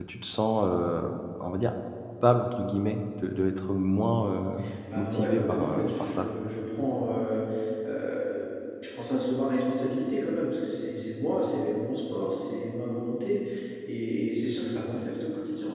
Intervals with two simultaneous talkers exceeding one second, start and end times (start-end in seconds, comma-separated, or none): 5.0-6.3